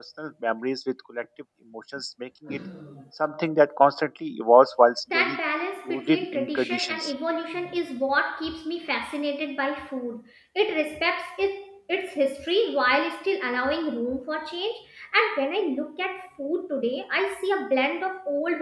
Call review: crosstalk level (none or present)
present